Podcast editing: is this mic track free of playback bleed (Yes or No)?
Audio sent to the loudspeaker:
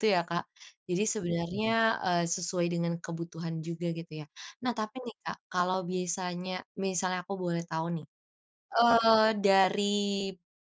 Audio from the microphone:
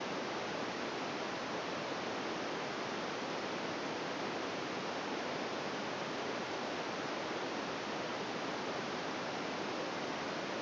Yes